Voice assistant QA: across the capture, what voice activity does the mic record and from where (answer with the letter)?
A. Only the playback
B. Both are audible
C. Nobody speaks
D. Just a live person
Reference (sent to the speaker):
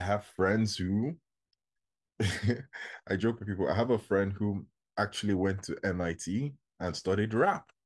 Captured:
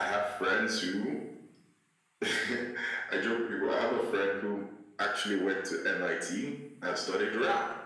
A